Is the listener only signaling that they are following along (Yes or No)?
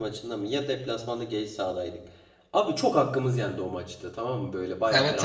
No